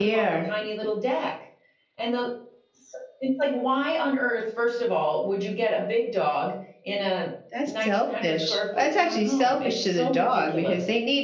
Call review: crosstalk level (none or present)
present